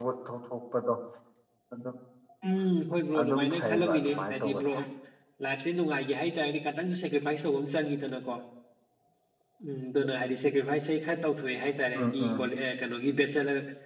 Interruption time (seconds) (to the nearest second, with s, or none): 3 s